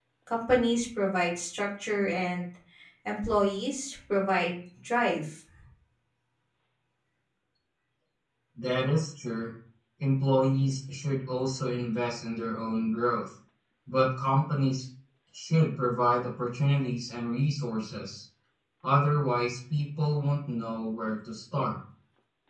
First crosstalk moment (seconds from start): none

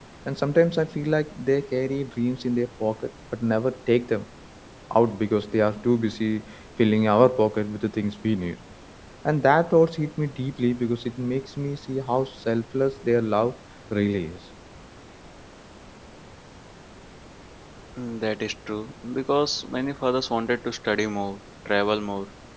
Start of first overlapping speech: none

